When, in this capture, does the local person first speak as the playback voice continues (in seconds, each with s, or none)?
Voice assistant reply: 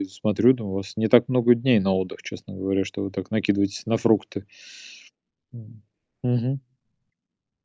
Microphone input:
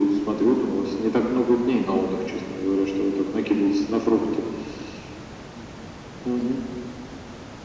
none